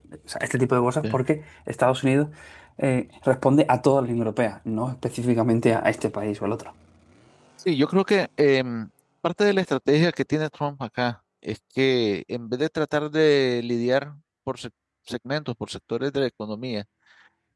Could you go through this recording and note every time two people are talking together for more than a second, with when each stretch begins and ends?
none

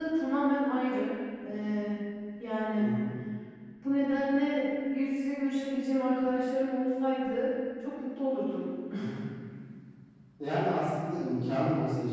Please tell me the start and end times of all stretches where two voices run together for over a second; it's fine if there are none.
none

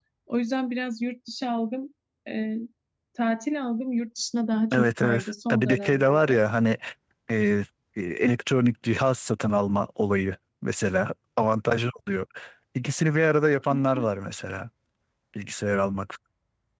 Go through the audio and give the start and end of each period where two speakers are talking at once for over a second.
4.7-6.3

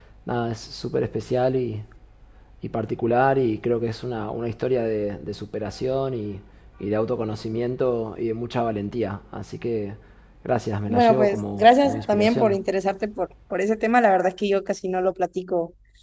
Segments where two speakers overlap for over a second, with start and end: 10.9-12.6

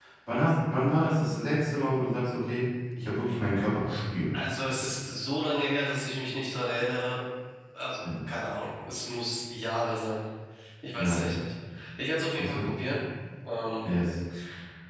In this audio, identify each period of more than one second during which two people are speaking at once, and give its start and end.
none

